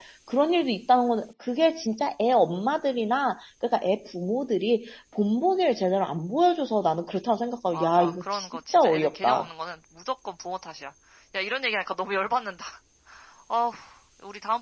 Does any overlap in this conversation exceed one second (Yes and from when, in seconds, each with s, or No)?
Yes, from 7.7 s